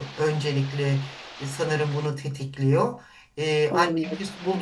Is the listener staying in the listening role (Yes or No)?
Yes